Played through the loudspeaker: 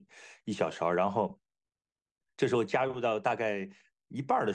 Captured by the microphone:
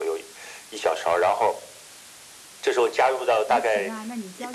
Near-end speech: present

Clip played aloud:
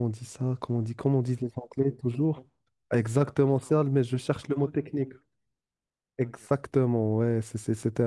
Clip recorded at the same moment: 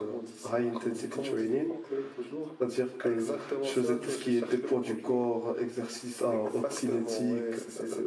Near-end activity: present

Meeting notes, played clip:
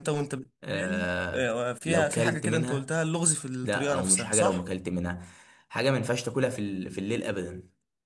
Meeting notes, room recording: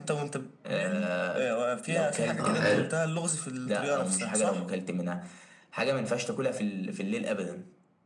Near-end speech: present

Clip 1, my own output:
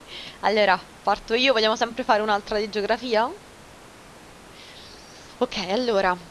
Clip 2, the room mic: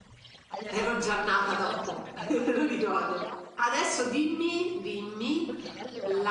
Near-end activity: present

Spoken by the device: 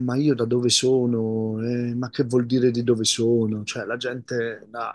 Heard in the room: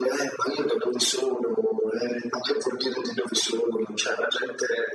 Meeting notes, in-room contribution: none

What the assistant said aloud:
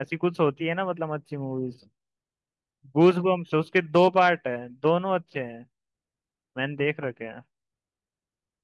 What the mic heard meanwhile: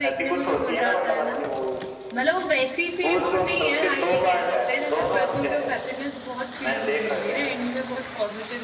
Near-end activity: present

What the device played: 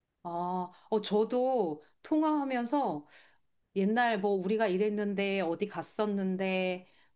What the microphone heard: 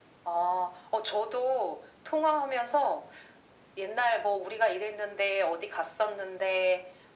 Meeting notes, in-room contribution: none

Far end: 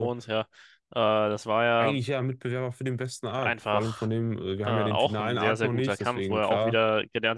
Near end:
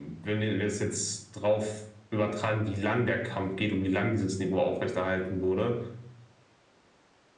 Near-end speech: present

